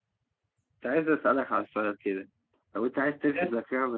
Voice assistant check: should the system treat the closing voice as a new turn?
No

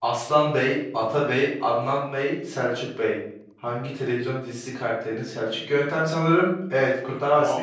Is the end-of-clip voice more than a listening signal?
Yes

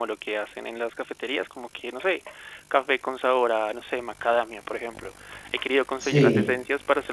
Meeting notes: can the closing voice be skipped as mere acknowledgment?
Yes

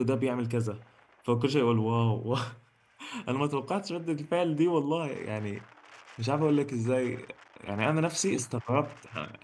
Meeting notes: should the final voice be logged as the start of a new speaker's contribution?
No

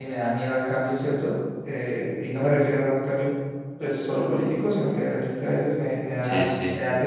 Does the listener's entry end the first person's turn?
No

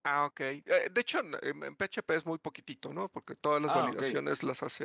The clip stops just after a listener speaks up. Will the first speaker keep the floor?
Yes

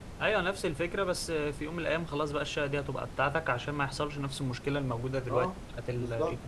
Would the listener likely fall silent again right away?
No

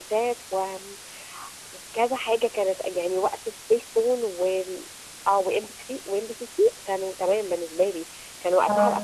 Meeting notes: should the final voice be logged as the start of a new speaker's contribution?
No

